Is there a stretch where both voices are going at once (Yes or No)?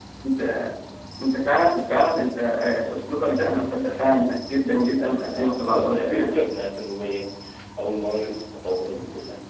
Yes